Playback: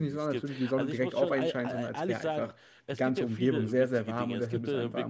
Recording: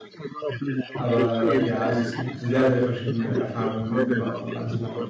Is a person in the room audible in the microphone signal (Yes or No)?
Yes